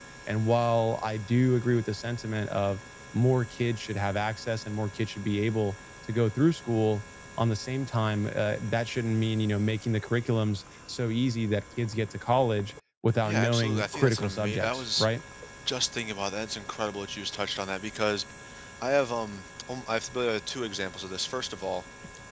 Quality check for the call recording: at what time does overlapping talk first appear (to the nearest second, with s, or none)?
13 s